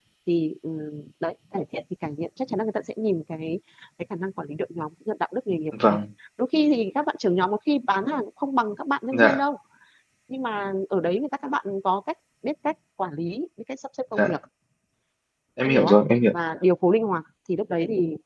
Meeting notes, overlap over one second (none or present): none